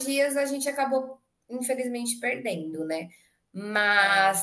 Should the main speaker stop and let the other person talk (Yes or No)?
No